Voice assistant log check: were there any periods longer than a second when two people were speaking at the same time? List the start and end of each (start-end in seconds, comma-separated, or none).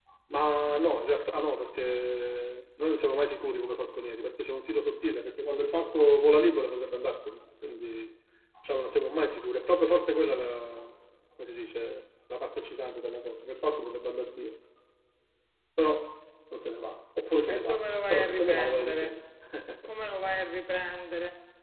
17.5-19.0